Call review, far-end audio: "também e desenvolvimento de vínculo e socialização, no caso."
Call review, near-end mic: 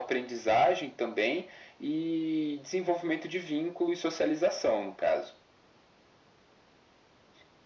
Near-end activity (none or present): none